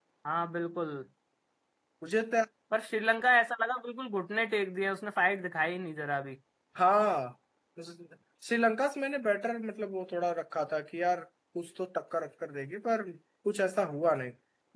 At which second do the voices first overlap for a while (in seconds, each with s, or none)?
none